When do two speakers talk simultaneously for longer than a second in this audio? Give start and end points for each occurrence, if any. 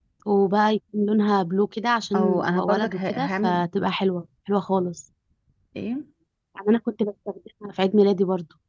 2.1-3.6

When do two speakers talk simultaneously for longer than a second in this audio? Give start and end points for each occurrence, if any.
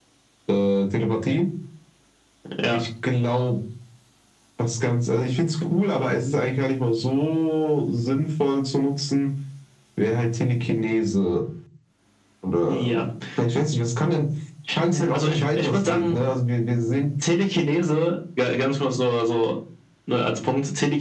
14.9-16.2

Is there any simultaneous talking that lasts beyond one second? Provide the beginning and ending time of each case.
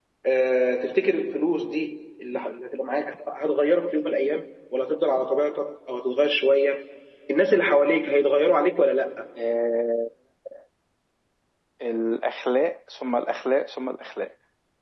none

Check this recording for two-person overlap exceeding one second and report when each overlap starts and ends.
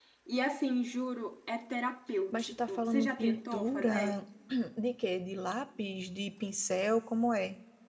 2.4-4.2

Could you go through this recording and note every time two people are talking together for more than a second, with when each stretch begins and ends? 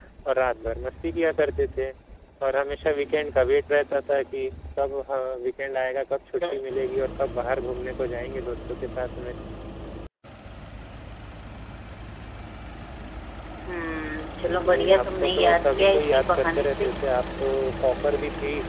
14.4-16.9

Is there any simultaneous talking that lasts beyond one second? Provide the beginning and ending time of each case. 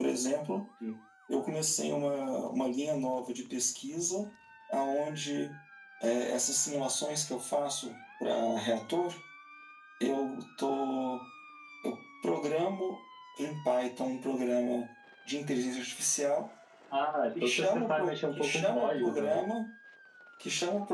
17.4-19.4

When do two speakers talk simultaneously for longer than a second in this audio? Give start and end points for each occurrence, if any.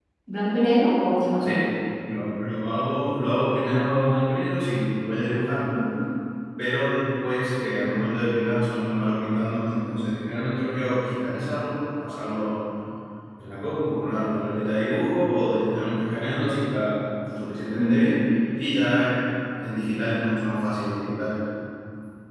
none

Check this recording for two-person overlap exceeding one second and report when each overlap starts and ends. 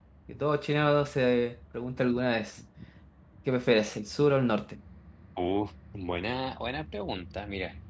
none

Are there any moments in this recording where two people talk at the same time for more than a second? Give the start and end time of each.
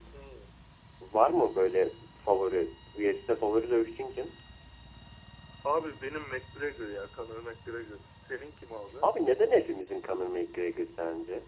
none

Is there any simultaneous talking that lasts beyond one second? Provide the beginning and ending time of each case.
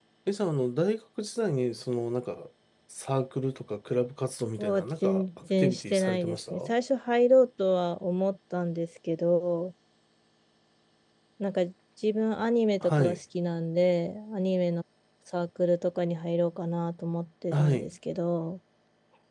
4.6-6.6

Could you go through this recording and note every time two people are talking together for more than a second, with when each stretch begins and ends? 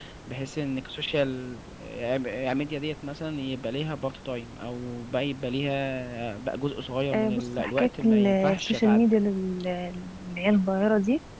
7.1-9.2

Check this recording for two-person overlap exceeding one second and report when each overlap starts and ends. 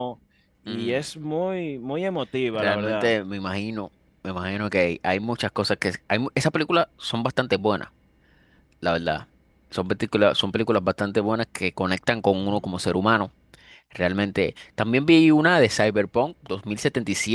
none

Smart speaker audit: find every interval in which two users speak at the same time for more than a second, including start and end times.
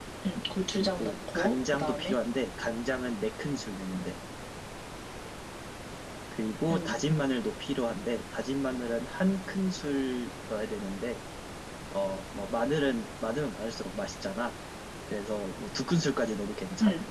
0.7-2.2

